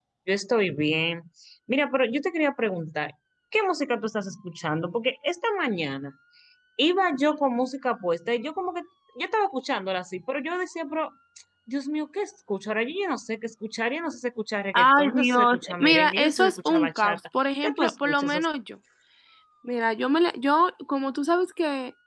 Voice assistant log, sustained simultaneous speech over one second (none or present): present